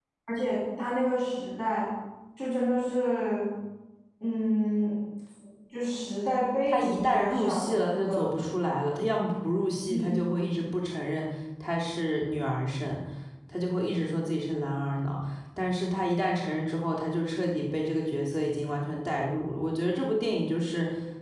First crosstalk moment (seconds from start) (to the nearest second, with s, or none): 7 s